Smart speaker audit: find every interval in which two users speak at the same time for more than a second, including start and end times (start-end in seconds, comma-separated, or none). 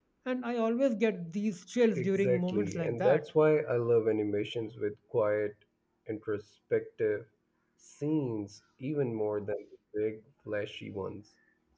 2.0-3.2